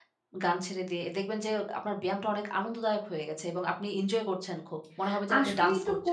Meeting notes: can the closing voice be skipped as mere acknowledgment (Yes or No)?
No